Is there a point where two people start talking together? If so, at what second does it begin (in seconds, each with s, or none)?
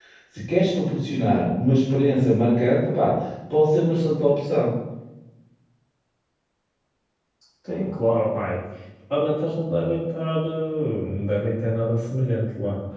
none